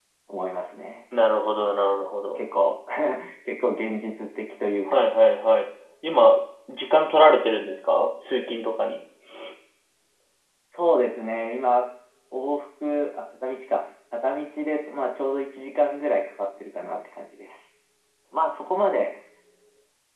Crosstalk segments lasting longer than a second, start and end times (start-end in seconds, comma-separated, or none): none